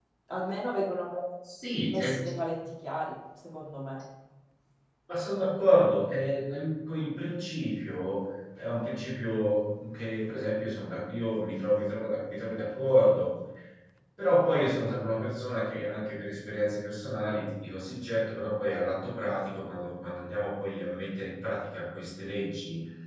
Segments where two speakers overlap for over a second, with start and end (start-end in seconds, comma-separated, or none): none